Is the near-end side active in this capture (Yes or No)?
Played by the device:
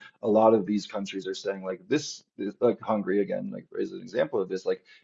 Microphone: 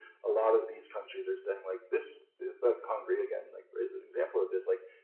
No